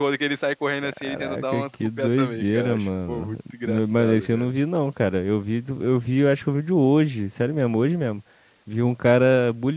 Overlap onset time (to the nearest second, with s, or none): 1 s